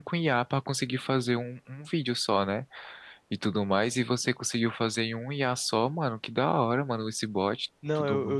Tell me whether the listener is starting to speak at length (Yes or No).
Yes